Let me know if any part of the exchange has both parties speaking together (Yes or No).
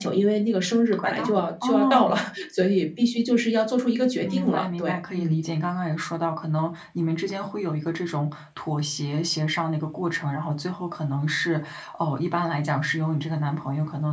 Yes